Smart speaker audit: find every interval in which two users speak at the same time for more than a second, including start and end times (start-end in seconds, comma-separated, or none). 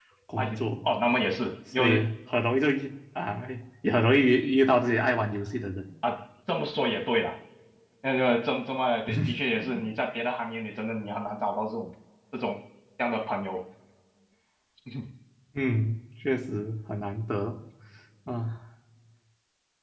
none